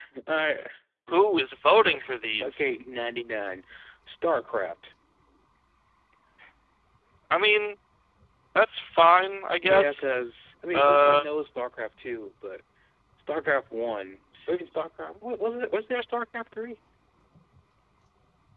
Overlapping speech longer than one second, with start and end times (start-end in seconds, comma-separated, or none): none